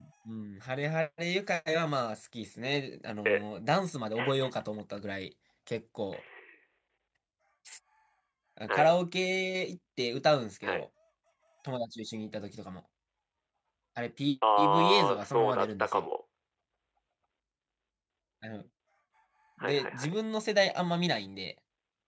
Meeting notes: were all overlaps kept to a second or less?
No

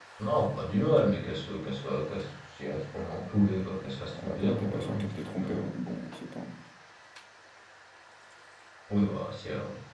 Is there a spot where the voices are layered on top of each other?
Yes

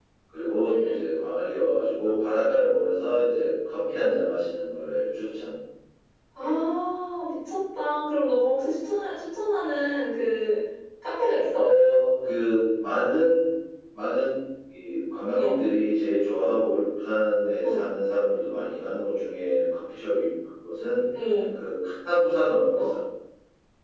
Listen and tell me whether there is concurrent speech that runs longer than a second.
No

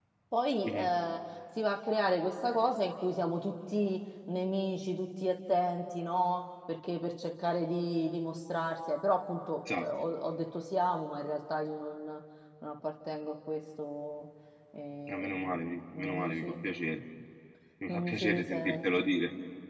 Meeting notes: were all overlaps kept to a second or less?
No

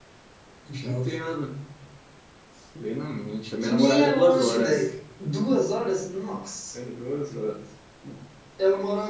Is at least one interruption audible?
Yes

